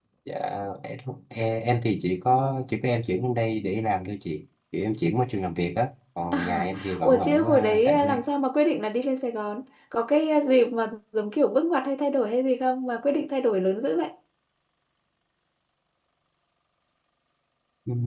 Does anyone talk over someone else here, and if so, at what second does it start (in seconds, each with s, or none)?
6.3 s